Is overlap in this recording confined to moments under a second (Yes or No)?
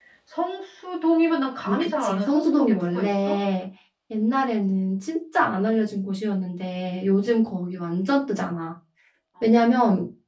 No